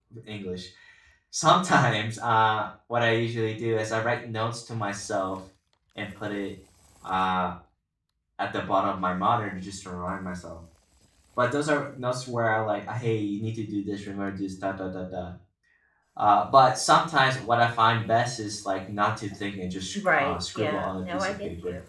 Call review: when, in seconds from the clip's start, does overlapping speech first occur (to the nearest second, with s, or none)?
20 s